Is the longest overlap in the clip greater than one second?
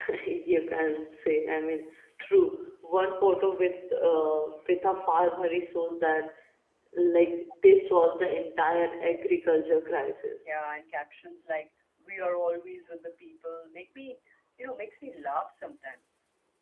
No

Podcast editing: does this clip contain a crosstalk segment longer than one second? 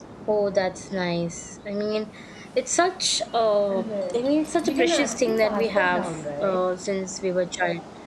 Yes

